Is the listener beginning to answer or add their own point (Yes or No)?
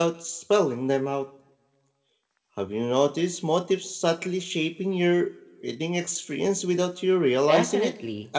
Yes